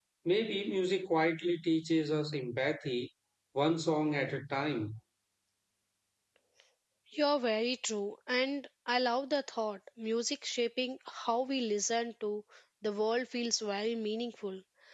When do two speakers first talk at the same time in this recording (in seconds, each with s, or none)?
none